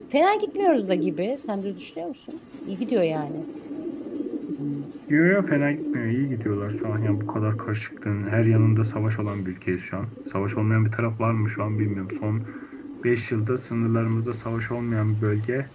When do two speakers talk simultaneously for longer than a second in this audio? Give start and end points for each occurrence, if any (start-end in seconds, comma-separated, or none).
none